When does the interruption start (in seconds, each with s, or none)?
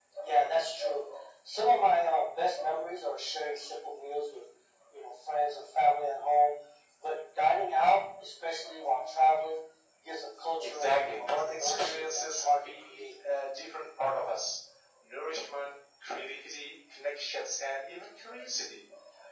10.6 s